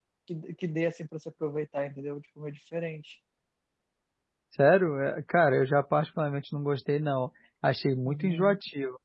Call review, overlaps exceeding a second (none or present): none